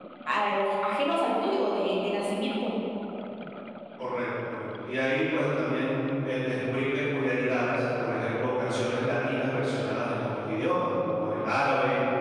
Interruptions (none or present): none